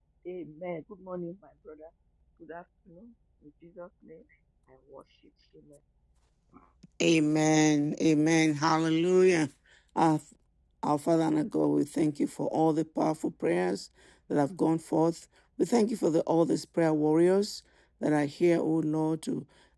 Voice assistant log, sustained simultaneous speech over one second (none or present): none